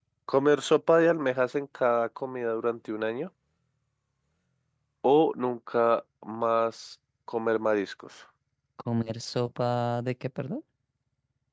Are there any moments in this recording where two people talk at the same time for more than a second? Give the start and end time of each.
none

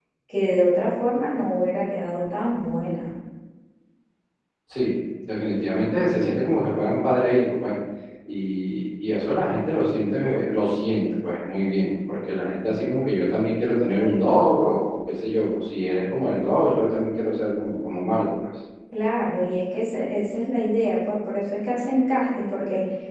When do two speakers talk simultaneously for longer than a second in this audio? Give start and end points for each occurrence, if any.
none

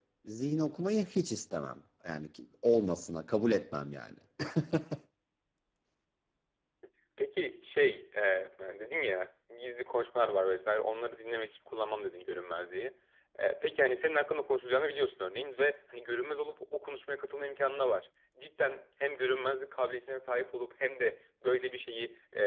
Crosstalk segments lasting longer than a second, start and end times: none

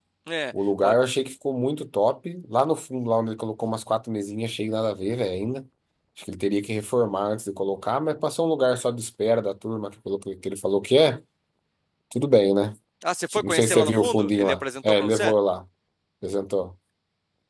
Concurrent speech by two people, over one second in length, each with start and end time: 13.4-15.3

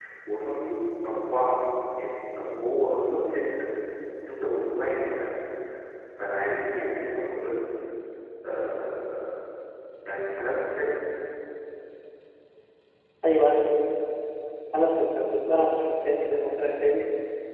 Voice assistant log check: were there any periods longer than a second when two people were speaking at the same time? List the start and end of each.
none

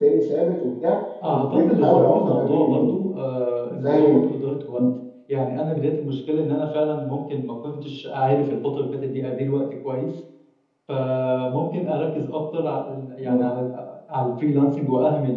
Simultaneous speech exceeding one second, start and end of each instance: 1.3-3.0

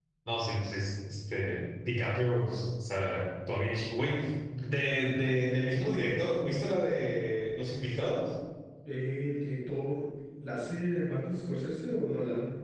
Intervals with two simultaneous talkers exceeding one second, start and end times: none

